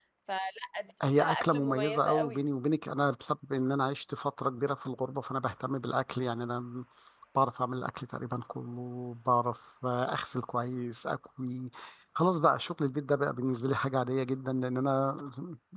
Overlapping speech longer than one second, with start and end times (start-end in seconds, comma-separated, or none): 1.2-2.5